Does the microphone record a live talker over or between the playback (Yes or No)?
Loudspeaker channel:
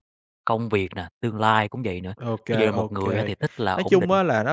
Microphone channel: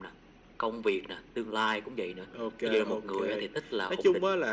No